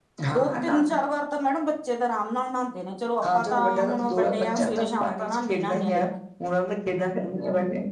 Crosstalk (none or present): present